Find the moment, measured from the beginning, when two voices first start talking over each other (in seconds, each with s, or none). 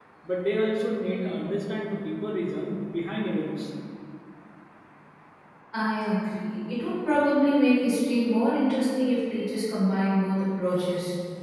none